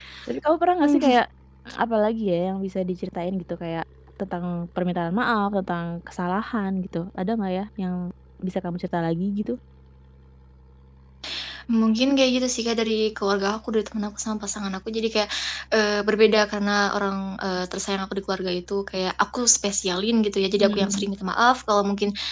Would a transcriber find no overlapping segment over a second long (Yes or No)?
Yes